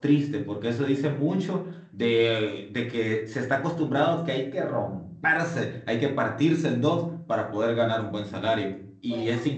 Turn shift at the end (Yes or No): No